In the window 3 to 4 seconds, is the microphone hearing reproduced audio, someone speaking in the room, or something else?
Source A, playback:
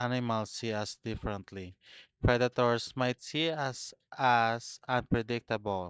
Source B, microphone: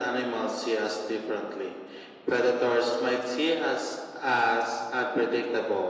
echo only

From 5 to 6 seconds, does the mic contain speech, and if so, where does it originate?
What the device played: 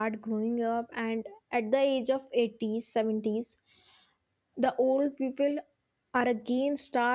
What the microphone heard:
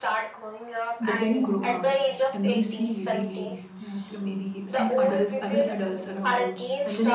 both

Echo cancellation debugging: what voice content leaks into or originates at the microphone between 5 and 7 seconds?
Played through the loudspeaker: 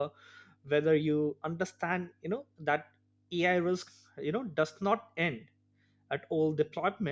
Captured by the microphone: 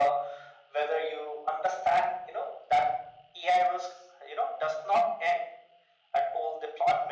echo only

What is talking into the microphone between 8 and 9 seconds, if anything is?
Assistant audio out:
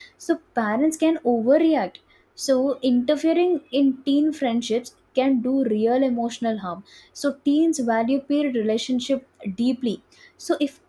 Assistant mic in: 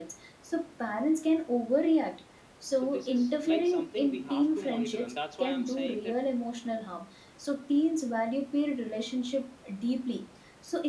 echo only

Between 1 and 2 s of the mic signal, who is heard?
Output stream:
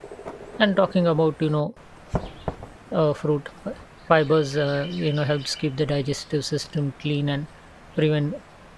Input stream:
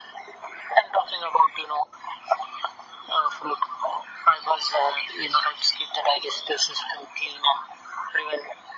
echo only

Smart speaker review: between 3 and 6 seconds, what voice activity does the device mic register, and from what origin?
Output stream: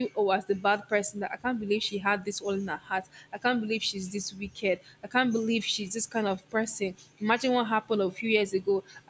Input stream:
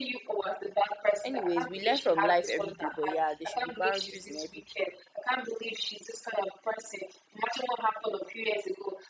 both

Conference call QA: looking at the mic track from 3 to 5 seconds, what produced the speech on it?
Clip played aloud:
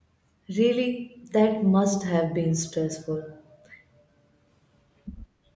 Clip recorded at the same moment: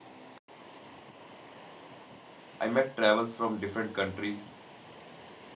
user only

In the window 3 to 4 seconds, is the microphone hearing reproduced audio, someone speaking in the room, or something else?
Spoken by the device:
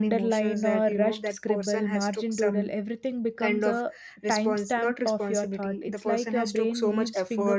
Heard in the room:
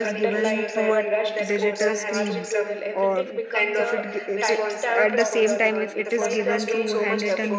both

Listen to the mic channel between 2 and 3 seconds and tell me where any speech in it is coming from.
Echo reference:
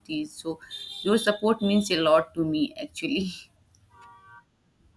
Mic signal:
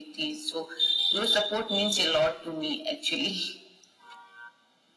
echo only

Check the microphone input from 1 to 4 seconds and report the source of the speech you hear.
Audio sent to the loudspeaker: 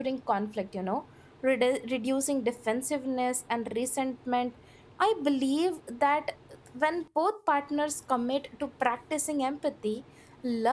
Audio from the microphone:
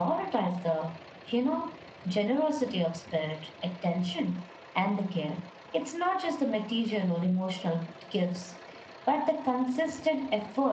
user only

